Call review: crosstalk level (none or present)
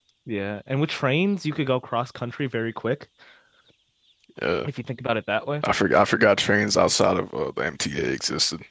none